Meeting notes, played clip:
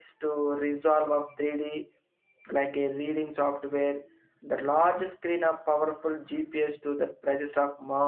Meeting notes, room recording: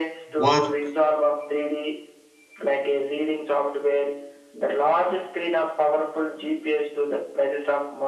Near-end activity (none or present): present